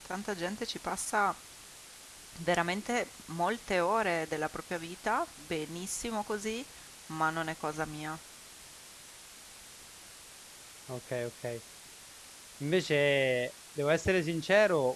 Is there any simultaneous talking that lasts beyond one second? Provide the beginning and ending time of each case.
none

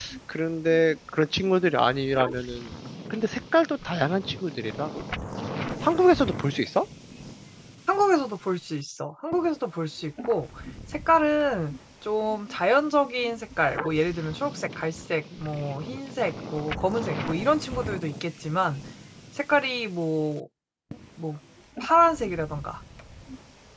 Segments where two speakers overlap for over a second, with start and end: none

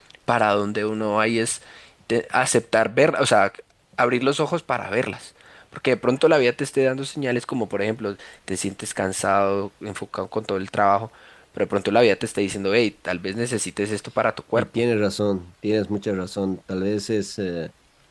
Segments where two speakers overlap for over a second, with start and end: none

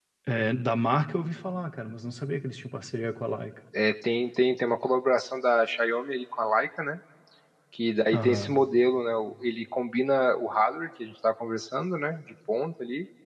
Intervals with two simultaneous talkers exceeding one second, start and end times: none

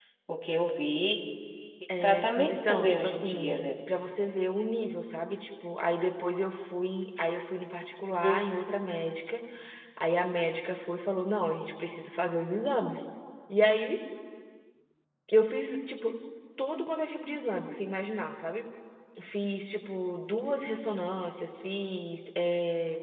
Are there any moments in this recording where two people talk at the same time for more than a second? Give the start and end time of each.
2.0-3.7

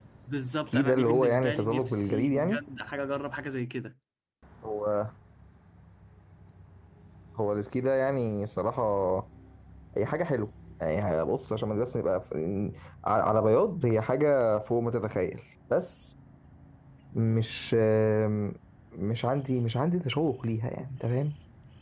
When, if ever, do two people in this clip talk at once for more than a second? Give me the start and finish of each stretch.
0.5-2.6

